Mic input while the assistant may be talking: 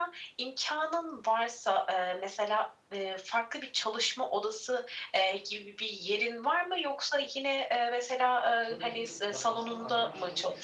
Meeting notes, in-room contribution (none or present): present